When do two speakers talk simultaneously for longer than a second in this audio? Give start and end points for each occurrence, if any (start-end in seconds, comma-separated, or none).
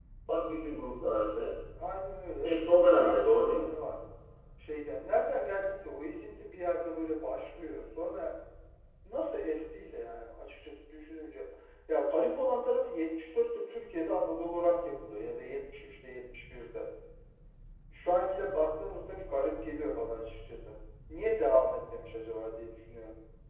2.4-3.7